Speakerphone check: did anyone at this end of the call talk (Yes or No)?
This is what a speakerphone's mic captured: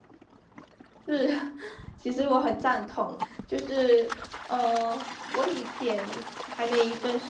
Yes